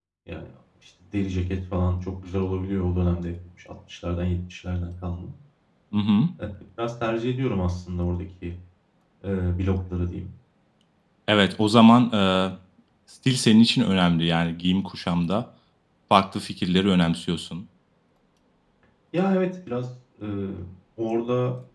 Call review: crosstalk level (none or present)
none